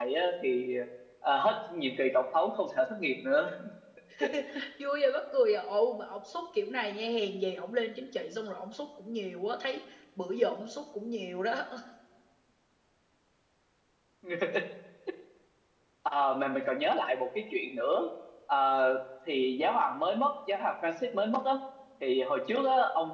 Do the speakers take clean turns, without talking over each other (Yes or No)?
Yes